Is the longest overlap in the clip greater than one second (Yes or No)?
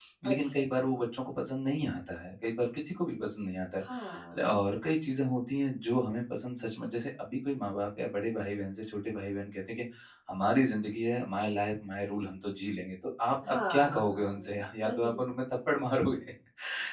Yes